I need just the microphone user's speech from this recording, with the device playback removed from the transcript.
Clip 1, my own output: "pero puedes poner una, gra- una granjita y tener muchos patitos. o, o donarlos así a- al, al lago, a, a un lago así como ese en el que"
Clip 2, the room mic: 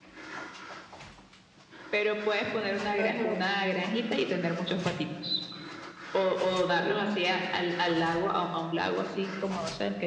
Ajá.

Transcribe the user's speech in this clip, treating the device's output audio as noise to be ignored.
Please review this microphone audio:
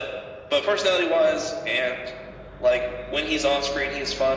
none

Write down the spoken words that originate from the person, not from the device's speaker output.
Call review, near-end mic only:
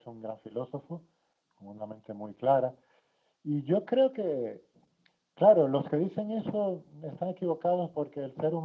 none

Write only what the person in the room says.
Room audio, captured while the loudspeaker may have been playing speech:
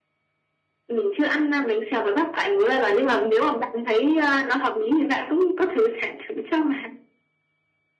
none

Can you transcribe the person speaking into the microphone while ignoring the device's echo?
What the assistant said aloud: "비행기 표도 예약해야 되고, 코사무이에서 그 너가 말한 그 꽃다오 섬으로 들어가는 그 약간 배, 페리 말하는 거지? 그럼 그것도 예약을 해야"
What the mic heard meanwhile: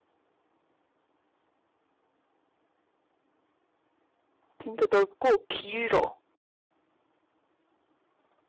진짜 넓고 길어.

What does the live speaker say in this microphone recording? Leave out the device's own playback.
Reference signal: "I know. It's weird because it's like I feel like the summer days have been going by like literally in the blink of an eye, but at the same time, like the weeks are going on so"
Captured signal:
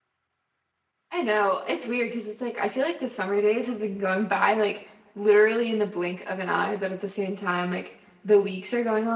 none

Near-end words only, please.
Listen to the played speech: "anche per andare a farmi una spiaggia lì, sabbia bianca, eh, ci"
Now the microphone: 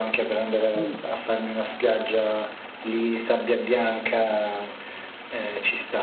Mm.

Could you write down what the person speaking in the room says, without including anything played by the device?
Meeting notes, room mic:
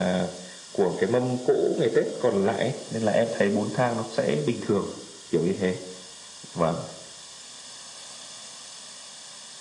none

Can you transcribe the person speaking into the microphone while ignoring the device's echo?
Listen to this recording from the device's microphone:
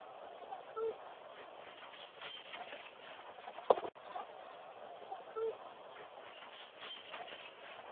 none

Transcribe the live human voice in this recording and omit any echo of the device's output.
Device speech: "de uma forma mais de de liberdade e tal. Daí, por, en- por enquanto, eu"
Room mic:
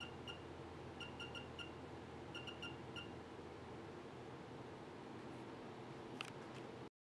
none

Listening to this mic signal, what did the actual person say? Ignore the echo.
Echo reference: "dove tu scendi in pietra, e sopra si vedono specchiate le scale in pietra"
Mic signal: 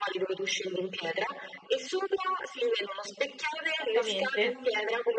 Esattamente,

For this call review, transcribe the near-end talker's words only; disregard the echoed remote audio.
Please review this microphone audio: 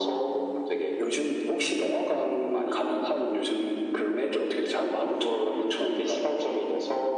none

